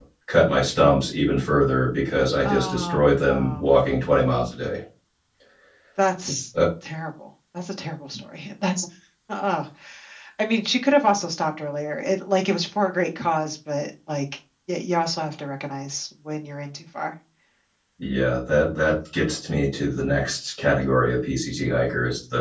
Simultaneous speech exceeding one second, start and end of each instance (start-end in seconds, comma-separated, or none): 2.4-3.7